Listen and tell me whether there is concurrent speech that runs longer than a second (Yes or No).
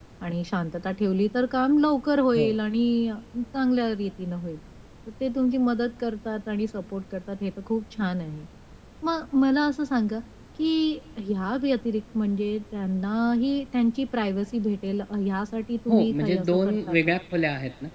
Yes